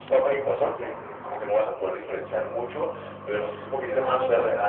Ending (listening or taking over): taking over